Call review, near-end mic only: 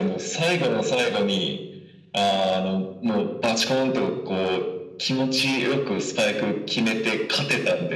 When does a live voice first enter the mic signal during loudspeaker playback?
none

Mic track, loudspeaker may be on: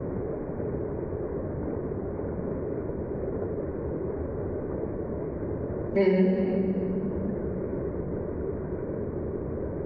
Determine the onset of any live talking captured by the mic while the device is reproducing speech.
6 s

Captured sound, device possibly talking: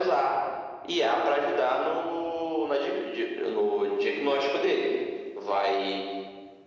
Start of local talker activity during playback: none

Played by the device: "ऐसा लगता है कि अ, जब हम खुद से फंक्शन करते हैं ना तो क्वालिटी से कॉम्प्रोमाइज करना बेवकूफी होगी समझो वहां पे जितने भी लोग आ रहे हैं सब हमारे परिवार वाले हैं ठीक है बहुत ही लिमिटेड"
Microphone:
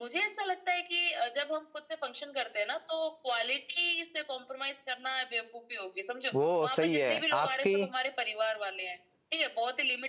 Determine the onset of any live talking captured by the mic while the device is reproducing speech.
6 s

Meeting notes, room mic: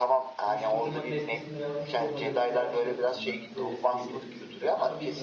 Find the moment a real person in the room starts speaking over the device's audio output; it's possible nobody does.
0 s

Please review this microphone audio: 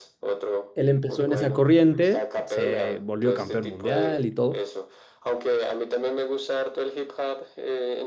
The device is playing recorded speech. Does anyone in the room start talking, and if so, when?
1 s

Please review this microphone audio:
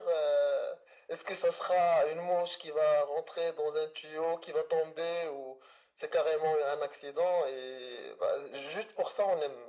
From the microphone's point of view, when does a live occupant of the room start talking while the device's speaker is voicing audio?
none

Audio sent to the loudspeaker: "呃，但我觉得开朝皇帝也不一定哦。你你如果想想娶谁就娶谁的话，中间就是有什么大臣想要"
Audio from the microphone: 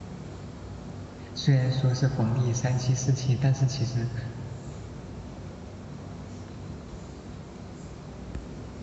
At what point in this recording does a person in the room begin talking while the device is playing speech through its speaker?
1 s

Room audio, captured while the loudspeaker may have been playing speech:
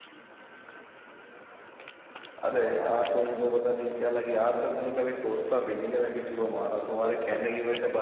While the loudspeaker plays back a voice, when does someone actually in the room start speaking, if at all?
none

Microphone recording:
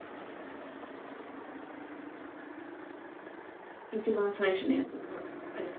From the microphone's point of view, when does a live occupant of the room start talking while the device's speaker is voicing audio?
4 s

